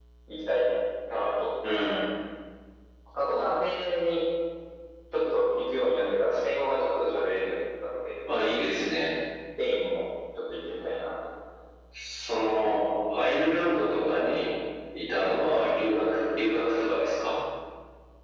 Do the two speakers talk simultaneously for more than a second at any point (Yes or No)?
No